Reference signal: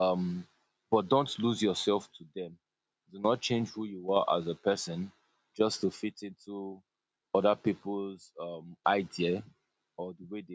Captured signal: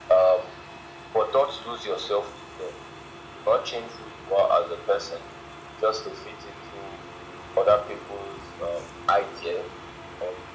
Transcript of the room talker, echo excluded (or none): none